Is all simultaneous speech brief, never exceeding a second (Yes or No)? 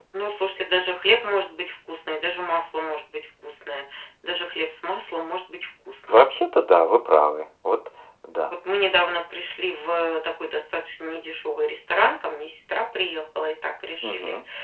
Yes